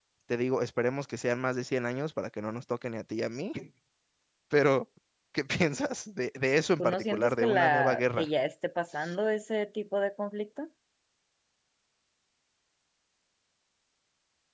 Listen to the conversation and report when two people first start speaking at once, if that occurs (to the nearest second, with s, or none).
7 s